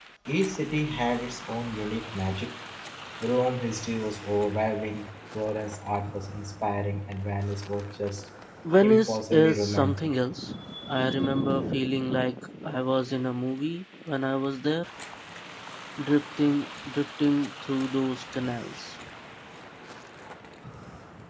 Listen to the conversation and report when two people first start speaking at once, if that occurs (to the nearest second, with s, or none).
9 s